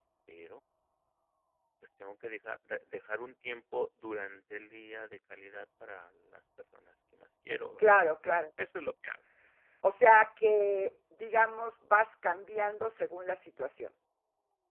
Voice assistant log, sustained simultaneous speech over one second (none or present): none